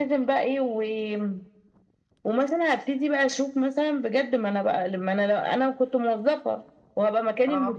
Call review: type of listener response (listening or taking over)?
listening